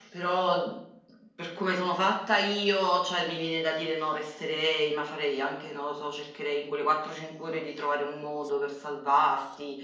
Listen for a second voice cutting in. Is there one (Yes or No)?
No